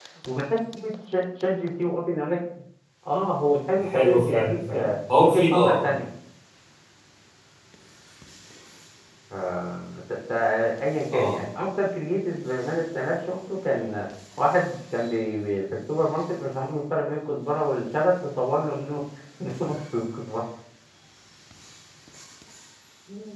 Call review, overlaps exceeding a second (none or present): present